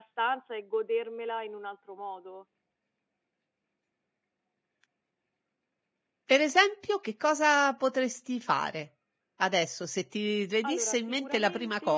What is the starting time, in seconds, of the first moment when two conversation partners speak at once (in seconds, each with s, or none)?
10.6 s